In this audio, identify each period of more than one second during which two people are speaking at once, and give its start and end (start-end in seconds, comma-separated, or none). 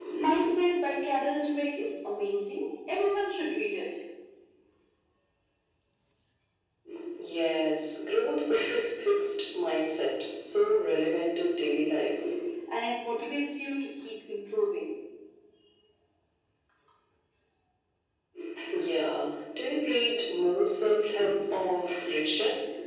none